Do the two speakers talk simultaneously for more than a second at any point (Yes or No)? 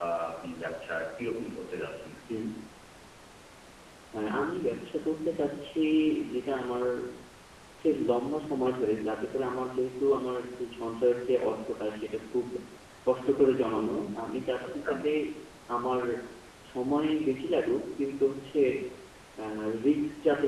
No